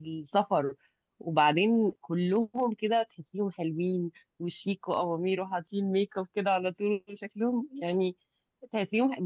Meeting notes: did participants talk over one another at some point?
No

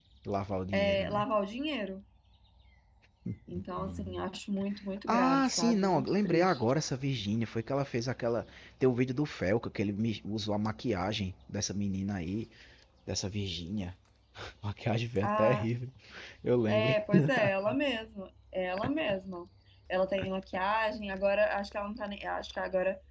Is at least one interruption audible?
Yes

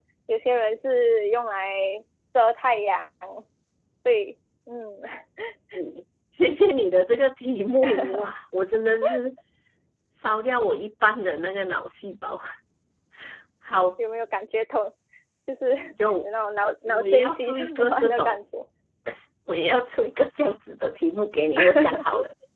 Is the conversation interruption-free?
No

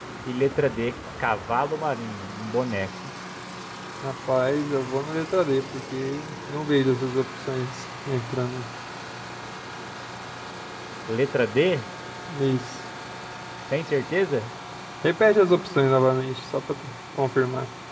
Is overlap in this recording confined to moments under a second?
Yes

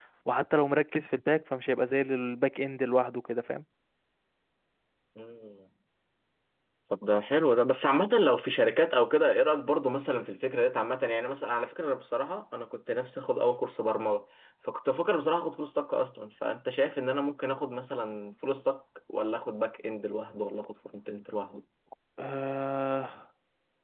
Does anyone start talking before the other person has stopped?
No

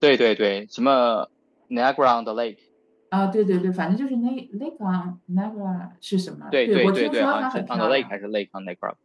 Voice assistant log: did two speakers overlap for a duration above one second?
Yes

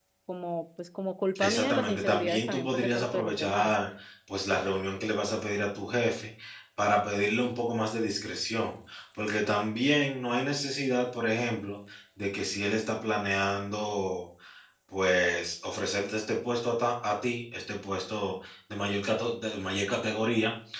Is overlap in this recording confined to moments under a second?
No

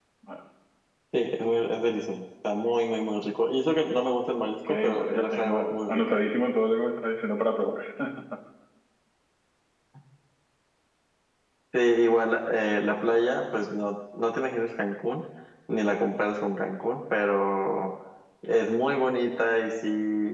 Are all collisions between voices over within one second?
No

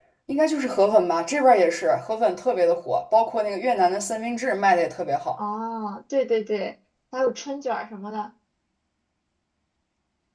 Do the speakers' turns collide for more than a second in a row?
No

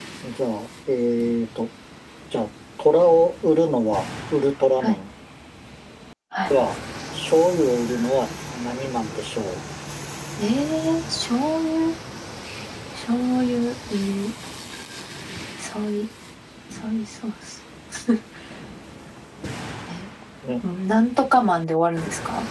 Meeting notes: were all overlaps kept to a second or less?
Yes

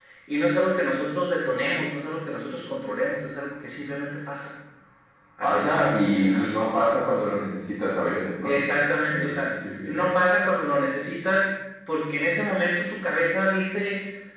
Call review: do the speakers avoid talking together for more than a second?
No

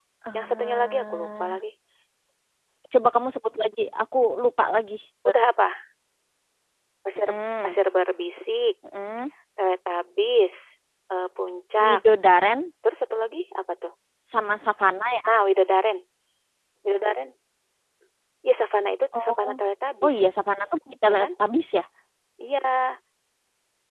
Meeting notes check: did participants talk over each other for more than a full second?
Yes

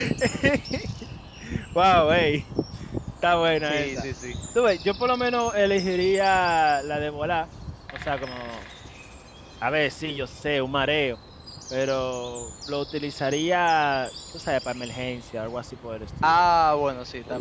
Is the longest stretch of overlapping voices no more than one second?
Yes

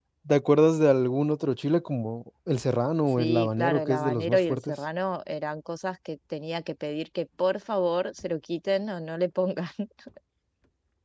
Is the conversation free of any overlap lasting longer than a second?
No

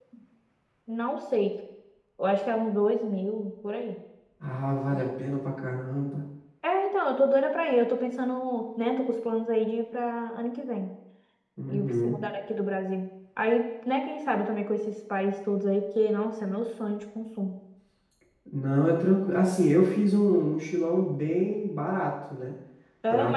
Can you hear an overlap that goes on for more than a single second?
No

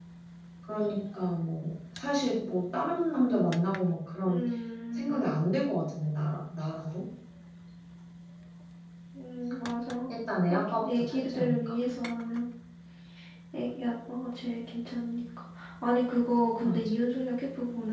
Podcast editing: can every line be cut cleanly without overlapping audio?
No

